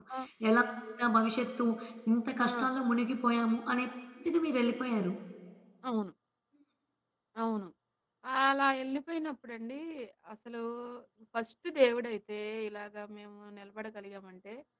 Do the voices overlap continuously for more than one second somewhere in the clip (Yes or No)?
No